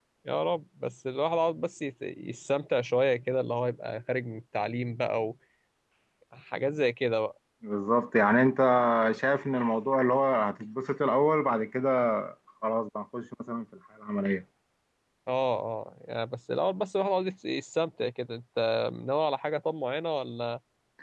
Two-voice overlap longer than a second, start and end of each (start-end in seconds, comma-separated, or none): none